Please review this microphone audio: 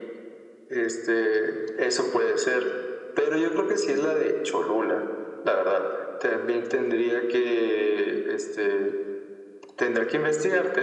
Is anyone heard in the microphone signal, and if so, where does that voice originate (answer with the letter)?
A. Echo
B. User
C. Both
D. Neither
A